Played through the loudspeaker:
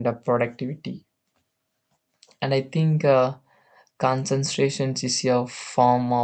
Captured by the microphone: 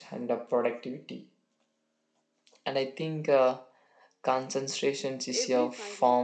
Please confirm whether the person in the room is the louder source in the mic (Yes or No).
No